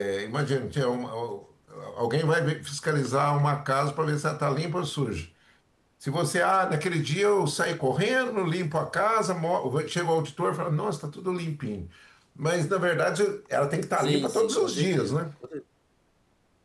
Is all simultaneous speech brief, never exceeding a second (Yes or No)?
No